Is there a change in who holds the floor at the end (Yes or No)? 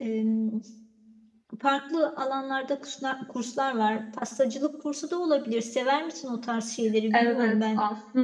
Yes